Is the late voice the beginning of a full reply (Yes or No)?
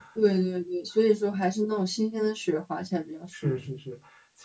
Yes